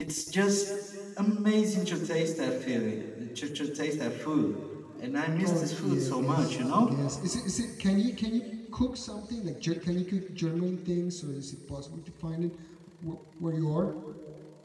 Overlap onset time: 5.4 s

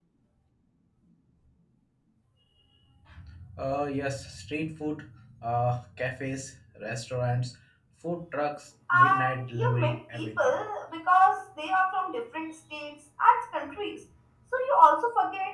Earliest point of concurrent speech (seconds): 8.9 s

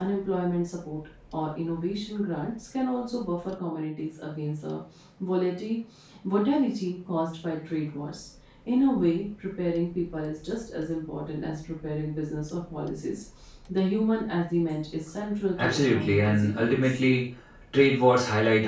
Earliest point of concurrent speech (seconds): 15.6 s

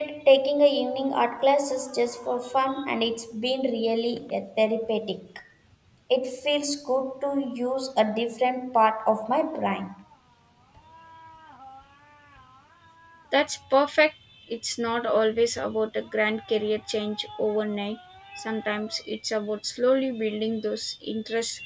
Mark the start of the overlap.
none

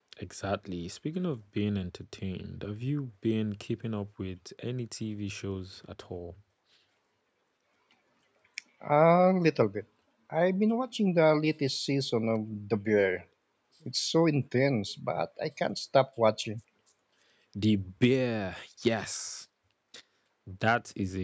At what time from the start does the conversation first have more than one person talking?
none

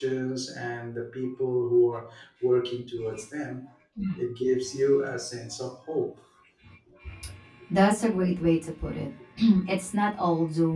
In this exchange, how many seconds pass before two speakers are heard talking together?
none

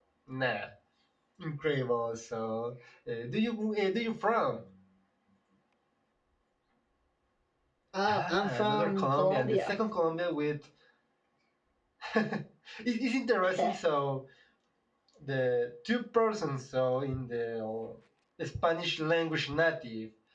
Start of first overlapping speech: 8.1 s

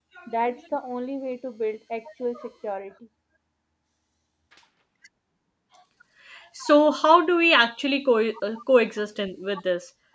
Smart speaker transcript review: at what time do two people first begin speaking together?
none

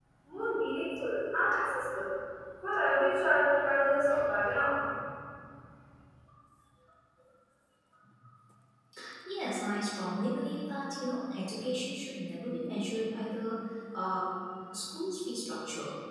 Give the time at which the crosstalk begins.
none

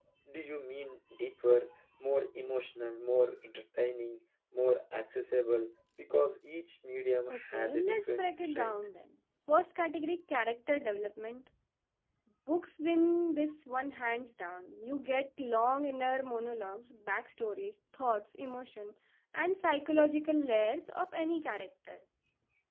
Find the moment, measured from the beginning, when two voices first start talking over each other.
7.3 s

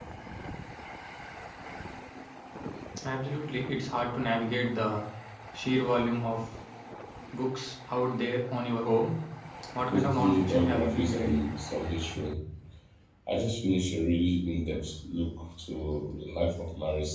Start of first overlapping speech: 9.9 s

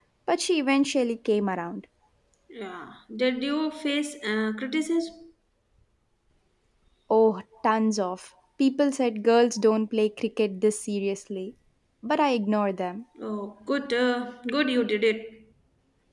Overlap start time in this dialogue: none

